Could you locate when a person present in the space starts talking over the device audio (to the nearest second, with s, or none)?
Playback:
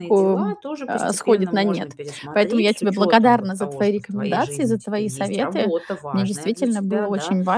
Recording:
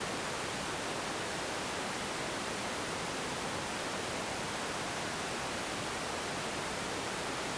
none